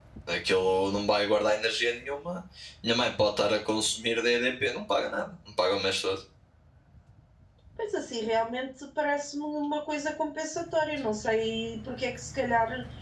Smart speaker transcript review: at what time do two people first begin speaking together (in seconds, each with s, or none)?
none